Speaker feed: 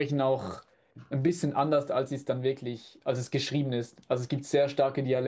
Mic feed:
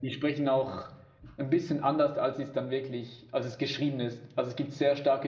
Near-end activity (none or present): none